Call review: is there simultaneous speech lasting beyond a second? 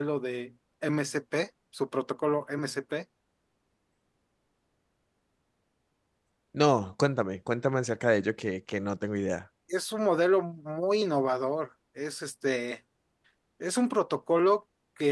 No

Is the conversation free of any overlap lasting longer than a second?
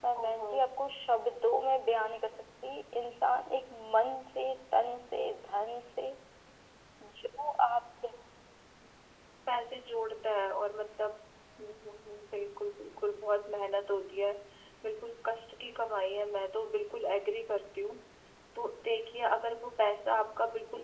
Yes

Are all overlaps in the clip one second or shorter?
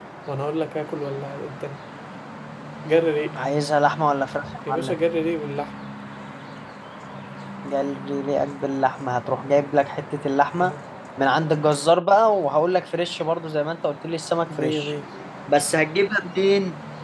Yes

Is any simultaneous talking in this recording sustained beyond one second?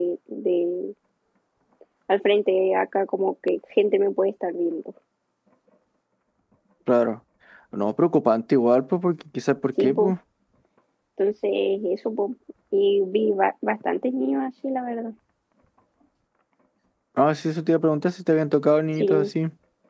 No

